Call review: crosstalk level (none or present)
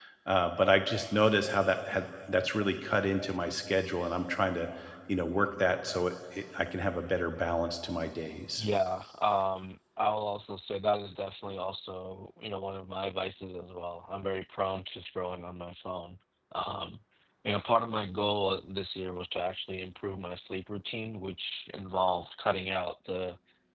none